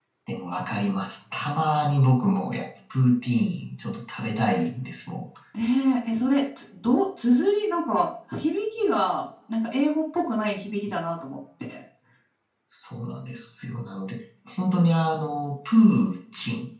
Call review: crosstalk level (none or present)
none